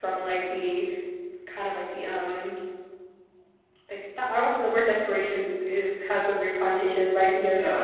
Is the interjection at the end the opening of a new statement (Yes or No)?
No